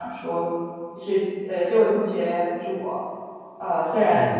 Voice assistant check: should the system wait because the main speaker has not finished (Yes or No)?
Yes